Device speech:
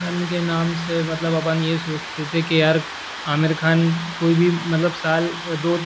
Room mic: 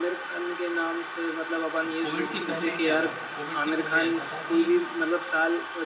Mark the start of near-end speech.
1.9 s

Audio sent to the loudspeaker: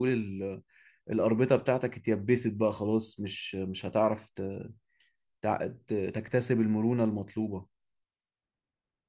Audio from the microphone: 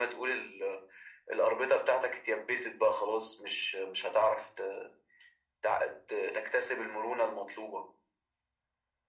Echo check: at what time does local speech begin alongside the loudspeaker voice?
none

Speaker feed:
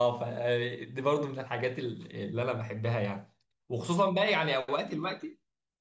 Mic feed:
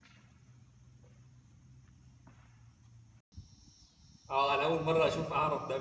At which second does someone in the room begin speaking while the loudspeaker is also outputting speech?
4.3 s

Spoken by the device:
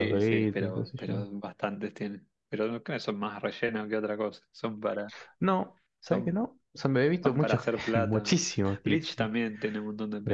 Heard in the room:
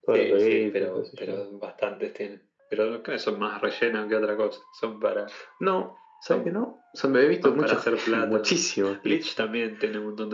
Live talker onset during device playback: none

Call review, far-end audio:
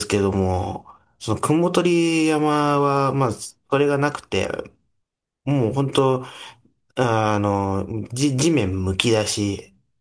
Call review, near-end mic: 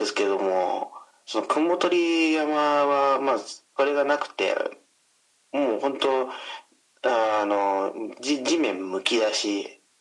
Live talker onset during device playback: none

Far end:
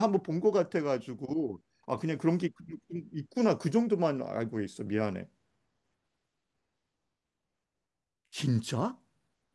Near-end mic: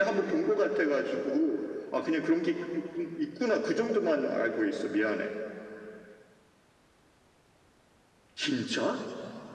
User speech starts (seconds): none

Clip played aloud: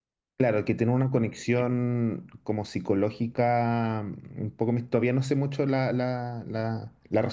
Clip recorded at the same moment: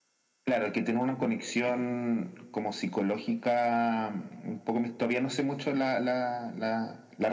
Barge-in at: none

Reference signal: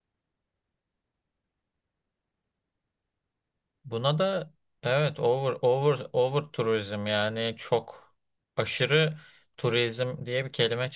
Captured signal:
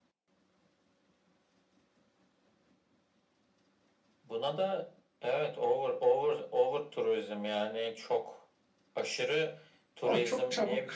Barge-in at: 10.0 s

